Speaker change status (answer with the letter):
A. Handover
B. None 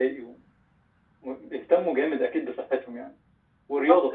A